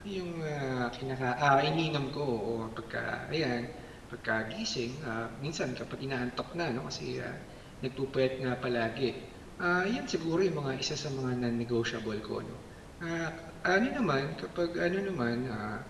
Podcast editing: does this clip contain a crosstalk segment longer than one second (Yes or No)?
No